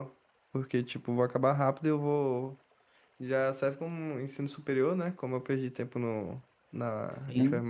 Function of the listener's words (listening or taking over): listening